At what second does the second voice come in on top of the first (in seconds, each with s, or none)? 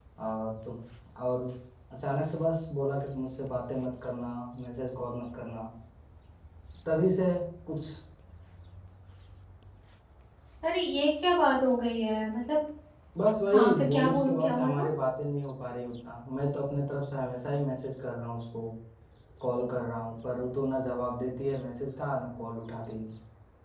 13.5 s